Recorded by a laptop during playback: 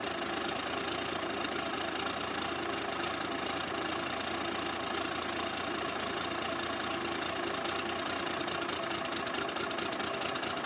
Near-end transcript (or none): none